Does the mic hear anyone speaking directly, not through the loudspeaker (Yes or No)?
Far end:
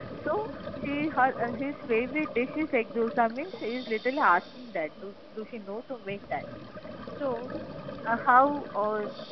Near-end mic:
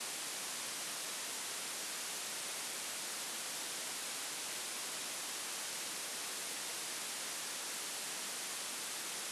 No